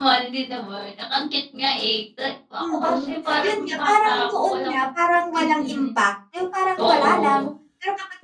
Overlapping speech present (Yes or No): Yes